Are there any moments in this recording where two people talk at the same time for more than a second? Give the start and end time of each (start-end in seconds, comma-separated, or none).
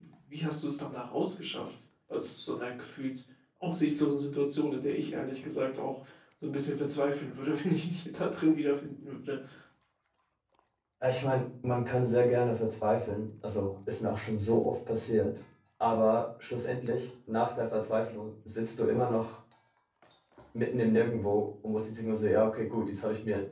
none